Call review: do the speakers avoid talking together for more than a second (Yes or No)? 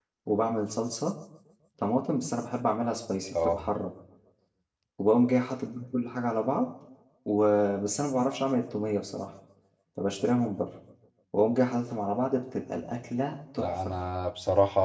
Yes